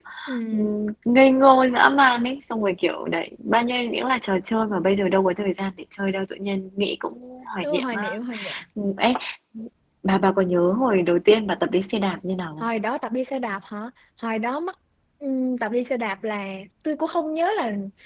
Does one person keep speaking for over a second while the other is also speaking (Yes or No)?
No